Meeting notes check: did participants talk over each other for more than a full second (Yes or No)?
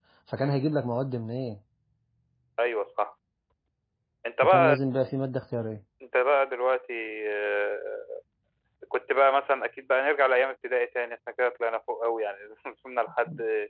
No